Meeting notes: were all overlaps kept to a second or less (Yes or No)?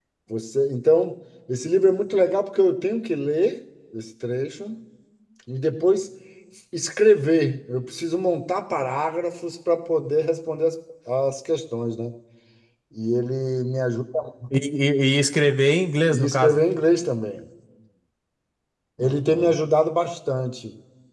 Yes